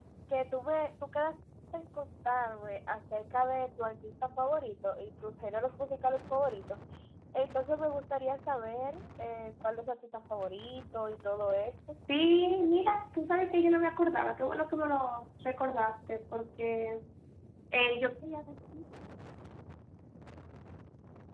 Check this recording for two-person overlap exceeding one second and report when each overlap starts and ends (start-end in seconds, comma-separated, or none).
none